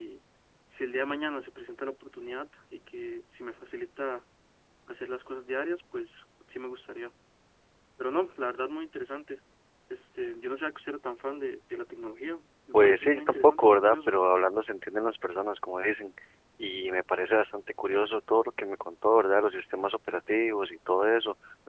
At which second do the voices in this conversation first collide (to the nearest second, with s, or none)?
13 s